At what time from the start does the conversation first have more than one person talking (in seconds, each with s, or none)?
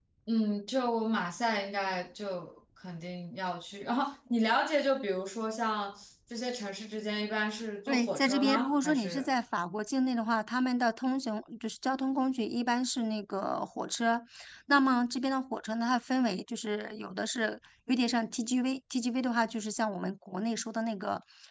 7.9 s